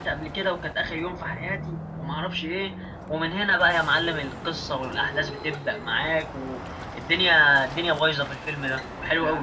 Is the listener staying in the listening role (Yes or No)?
No